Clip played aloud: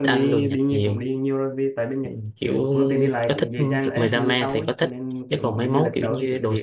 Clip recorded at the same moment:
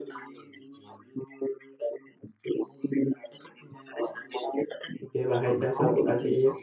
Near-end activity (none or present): present